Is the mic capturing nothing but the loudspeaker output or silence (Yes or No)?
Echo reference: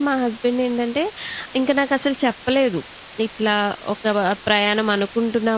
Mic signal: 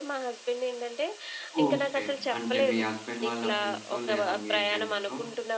No